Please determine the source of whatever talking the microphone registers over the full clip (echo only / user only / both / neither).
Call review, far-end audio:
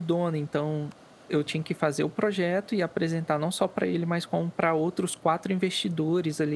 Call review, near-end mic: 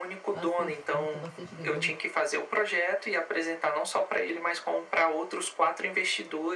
both